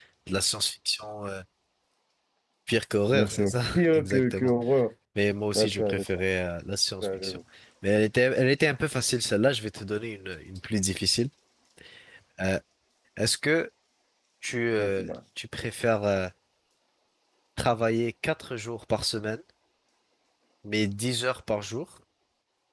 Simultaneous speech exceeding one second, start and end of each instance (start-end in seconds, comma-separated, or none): 3.1-4.5